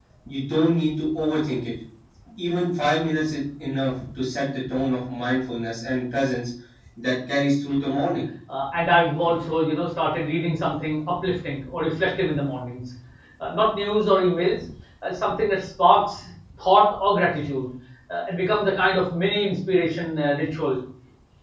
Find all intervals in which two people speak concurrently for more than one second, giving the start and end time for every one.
none

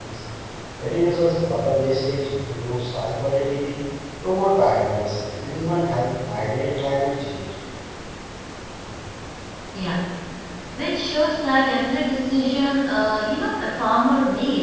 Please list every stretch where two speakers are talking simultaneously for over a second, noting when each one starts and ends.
none

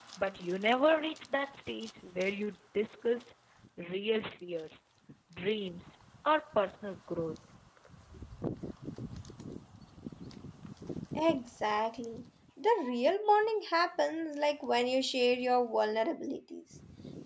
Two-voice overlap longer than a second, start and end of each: none

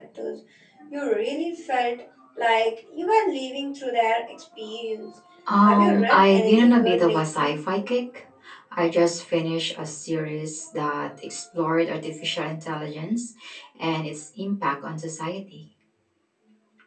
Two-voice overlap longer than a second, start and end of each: 5.6-7.6

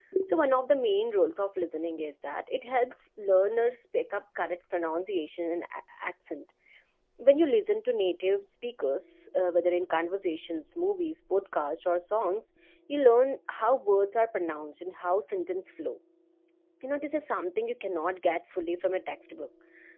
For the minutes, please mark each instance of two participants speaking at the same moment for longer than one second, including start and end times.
none

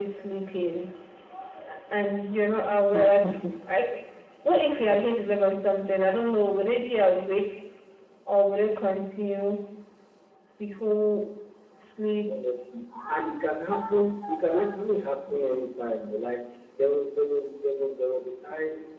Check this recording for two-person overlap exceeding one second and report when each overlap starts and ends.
none

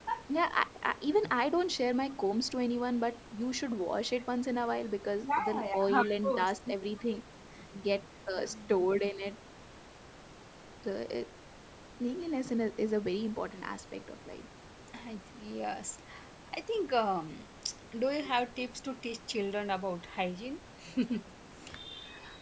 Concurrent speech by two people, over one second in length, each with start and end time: 5.2-6.5

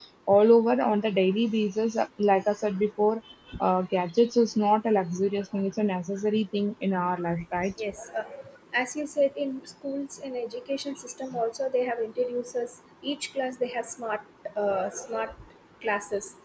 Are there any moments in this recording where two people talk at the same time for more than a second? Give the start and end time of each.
none

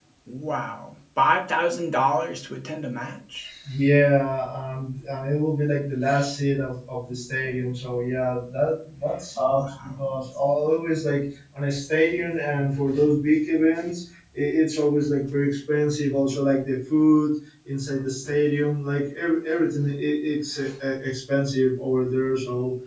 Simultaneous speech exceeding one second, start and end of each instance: none

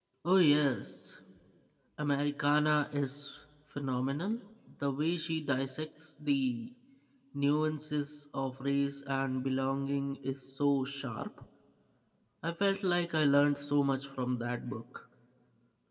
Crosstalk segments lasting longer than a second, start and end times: none

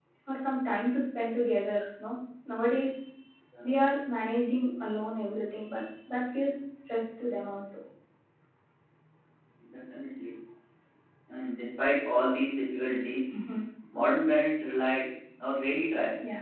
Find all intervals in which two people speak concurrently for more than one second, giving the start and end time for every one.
none

